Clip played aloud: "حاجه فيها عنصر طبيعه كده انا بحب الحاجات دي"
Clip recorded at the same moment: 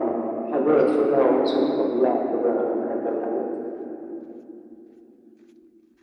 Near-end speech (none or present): none